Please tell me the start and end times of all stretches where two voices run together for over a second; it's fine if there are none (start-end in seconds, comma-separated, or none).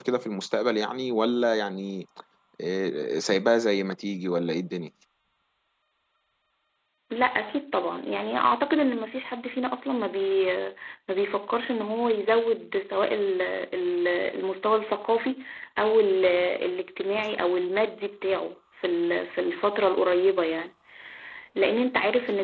none